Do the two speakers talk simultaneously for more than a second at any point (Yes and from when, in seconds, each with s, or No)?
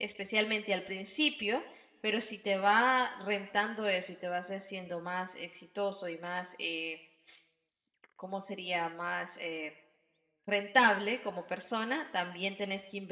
No